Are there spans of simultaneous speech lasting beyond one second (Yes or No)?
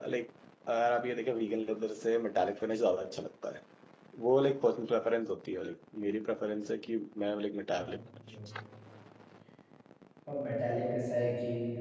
No